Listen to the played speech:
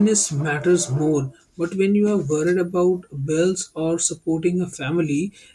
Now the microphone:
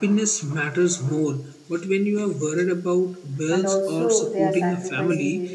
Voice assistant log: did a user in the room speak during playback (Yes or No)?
Yes